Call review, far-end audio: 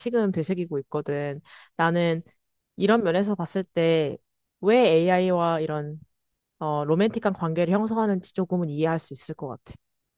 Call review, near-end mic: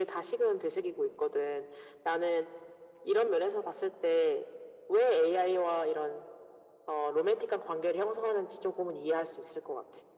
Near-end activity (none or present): none